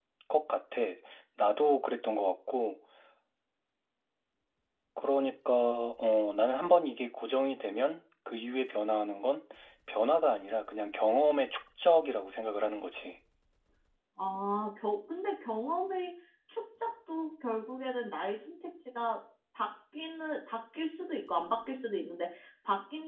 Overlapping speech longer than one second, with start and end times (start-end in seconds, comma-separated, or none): none